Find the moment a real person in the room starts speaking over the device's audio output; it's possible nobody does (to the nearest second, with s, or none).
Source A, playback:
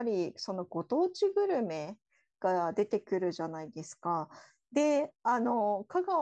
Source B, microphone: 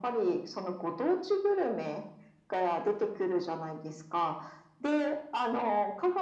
none